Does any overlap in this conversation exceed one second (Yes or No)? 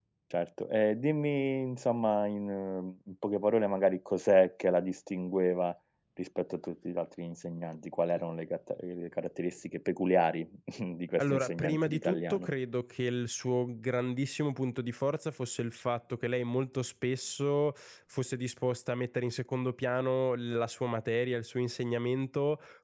Yes